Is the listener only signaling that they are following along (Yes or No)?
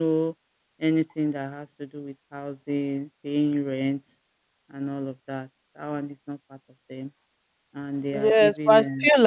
No